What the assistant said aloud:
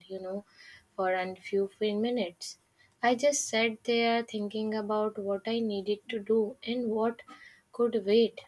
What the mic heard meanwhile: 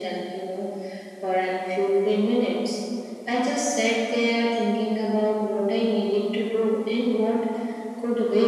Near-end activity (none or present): none